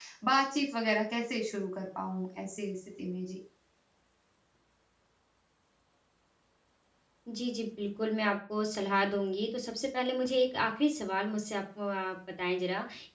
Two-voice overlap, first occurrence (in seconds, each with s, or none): none